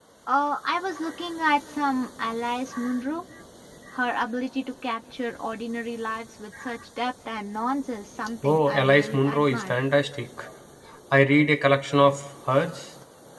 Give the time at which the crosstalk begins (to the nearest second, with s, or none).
8 s